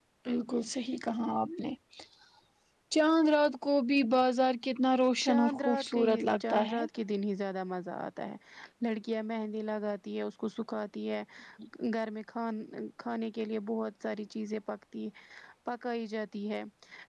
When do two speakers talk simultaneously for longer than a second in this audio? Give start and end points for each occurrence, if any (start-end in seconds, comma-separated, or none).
5.2-6.8